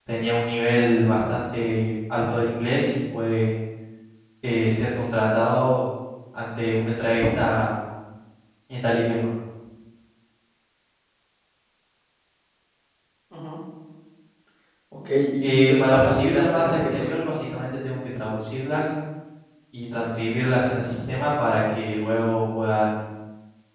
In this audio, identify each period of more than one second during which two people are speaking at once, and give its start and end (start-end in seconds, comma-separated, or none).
15.4-17.1